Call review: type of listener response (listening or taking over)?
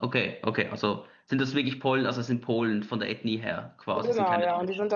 taking over